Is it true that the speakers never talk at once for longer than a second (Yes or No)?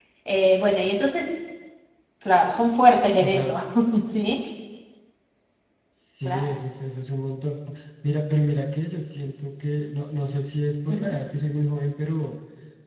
Yes